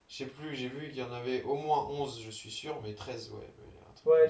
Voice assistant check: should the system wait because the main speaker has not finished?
No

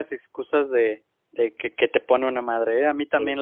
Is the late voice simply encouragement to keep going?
Yes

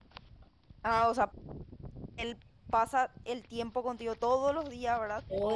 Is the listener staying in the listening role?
No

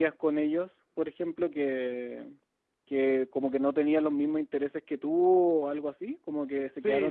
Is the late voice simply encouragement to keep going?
No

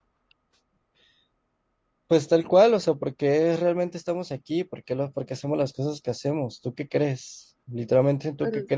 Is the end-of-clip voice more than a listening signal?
No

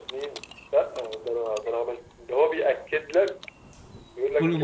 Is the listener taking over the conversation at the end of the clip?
No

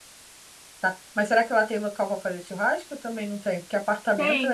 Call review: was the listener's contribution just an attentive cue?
No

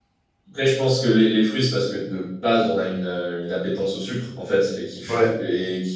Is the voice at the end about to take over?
No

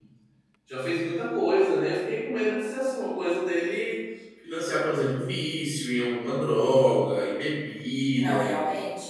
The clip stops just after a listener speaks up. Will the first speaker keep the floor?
No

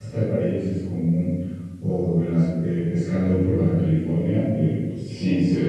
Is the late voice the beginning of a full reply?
No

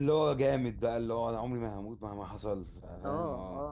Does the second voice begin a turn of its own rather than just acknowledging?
Yes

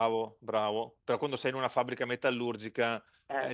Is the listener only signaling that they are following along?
Yes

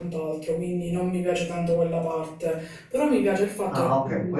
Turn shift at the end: Yes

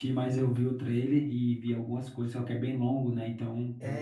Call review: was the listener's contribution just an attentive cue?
No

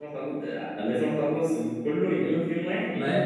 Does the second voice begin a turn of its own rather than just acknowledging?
Yes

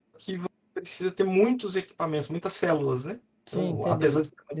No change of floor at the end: No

